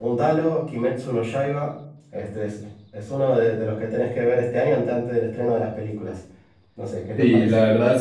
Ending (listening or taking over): taking over